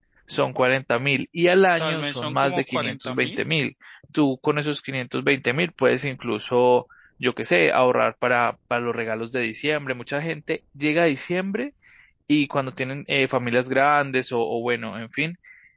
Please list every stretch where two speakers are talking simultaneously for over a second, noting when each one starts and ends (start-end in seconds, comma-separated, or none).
1.8-3.4